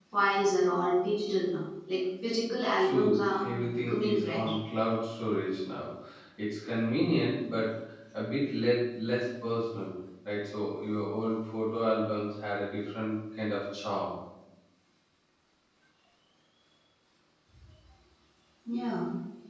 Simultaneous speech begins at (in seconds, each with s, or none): 2.8 s